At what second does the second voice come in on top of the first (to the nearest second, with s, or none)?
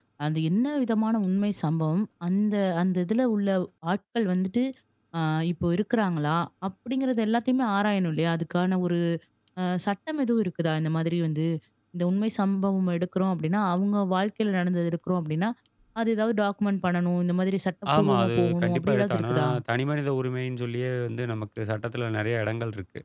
18 s